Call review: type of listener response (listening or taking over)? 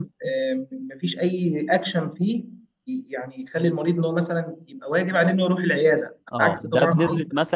taking over